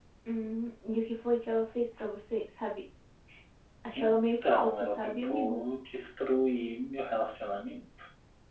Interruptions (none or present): present